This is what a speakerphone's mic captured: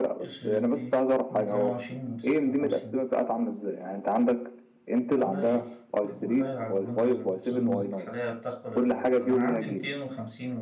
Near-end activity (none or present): present